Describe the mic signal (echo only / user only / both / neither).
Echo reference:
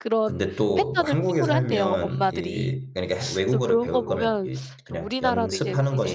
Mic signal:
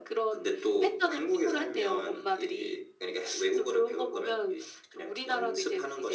echo only